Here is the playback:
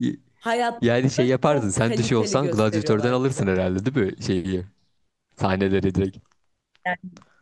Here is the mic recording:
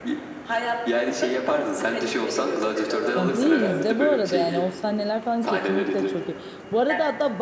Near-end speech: present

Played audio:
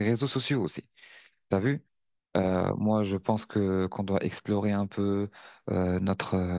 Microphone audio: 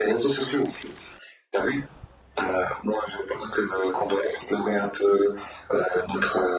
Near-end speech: none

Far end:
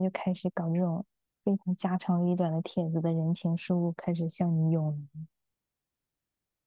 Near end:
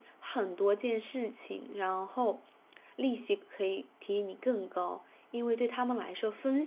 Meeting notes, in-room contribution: present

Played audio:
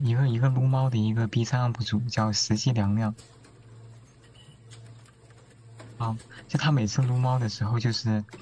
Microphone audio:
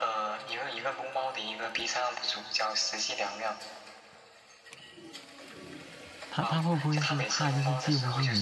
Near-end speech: present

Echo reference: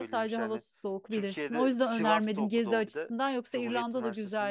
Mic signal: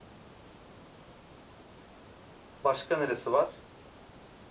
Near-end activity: present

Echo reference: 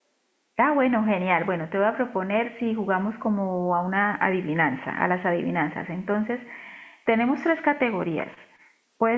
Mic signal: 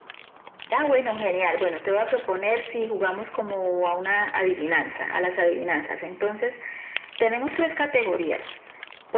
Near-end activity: none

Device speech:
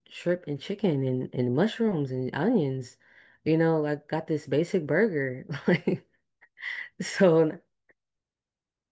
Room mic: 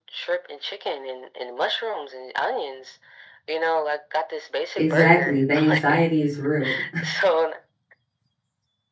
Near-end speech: present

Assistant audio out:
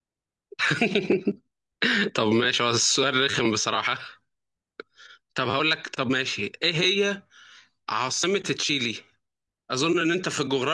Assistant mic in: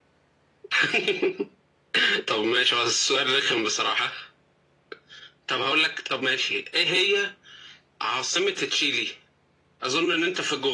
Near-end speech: none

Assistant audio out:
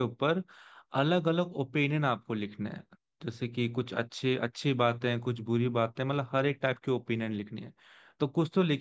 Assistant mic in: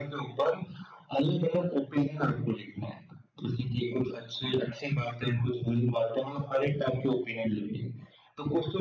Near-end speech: none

